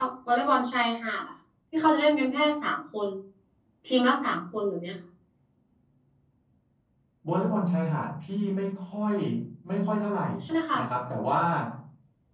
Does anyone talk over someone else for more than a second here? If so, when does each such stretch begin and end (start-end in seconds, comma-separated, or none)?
none